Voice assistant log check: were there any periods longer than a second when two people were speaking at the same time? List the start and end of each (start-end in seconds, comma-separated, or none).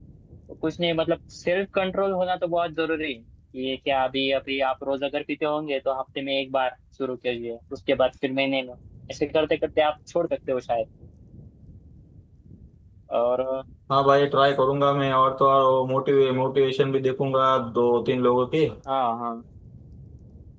none